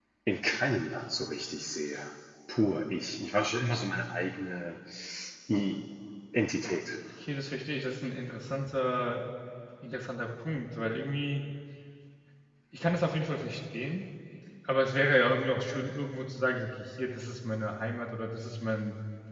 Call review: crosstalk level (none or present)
none